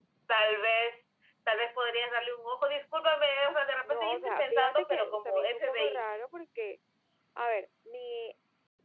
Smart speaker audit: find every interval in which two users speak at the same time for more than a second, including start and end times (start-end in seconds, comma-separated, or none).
3.8-6.0